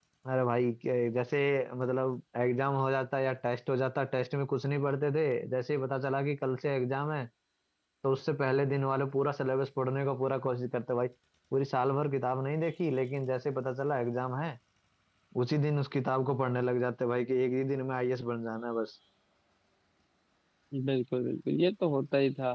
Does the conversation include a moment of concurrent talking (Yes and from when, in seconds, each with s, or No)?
No